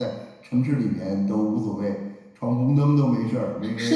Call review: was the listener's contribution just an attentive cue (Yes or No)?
No